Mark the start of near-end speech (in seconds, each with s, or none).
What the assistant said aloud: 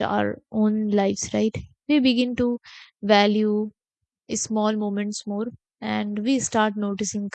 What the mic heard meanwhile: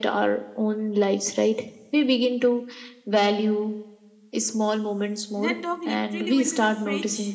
5.4 s